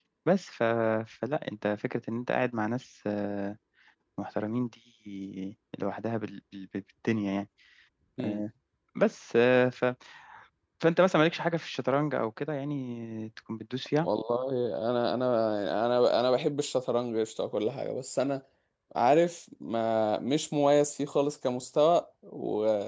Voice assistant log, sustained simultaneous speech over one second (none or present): none